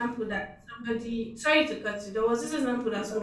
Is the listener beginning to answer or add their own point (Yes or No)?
No